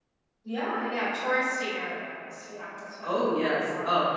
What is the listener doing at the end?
taking over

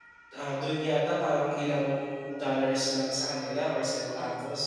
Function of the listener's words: listening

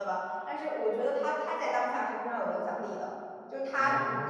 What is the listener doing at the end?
listening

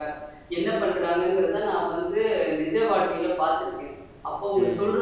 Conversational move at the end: listening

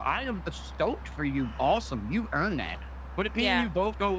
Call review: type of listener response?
listening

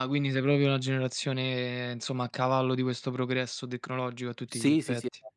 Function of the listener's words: taking over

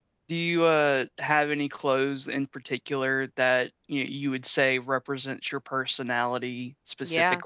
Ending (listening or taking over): taking over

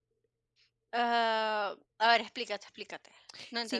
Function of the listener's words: taking over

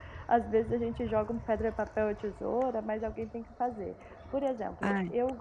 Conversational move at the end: listening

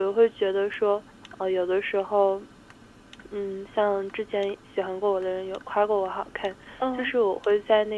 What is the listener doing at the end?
listening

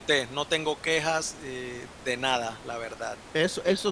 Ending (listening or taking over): taking over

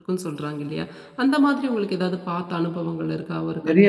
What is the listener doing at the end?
taking over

